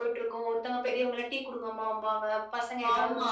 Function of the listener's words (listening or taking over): taking over